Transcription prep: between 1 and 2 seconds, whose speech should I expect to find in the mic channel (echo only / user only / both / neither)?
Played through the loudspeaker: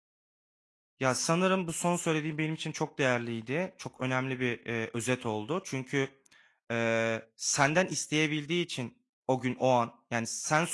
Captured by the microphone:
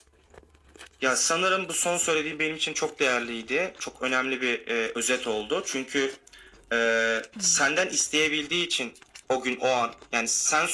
echo only